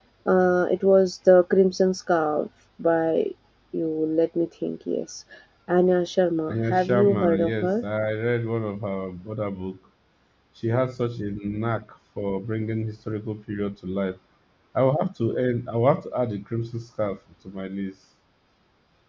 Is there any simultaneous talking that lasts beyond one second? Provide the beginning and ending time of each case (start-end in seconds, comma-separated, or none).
6.5-7.8